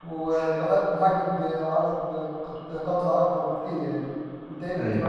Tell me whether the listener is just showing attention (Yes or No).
No